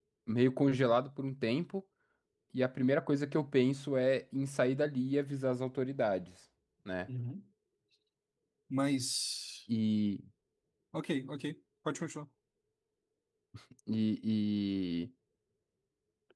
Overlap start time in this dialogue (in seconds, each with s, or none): none